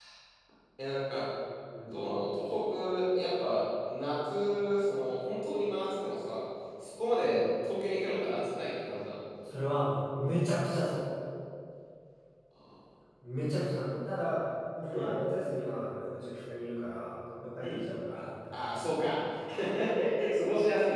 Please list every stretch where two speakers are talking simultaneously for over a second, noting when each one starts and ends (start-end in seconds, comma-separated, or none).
none